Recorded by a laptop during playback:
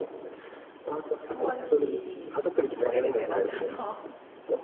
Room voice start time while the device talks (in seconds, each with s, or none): 1.3 s